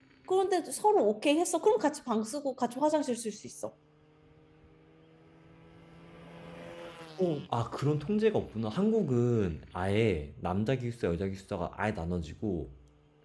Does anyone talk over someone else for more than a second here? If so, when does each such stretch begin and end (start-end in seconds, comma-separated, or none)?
none